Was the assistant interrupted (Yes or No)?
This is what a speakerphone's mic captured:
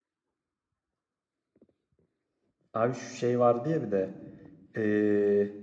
Yes